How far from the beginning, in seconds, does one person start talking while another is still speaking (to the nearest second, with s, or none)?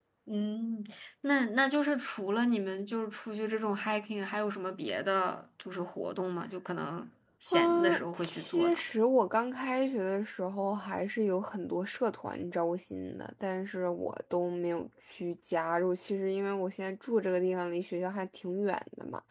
8 s